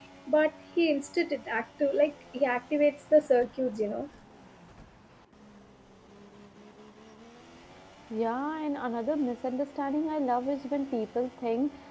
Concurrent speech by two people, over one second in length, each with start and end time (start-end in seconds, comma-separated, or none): none